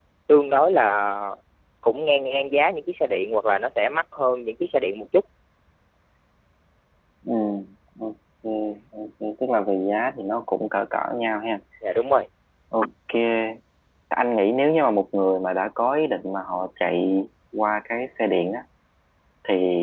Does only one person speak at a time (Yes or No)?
Yes